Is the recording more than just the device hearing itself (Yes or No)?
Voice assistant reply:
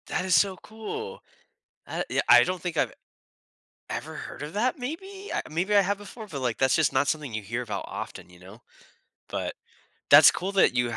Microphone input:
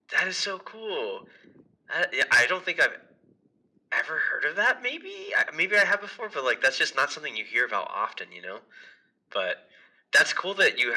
No